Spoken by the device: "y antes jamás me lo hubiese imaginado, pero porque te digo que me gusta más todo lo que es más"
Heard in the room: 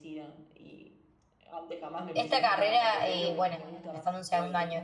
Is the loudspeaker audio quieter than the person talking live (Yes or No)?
Yes